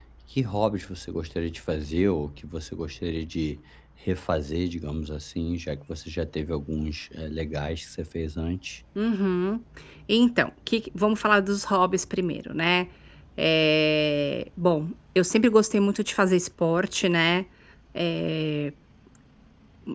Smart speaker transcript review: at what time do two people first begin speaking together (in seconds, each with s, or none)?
none